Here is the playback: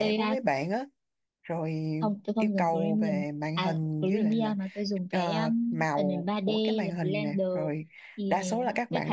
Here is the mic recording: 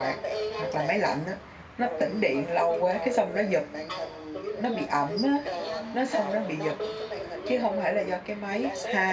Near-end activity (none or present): present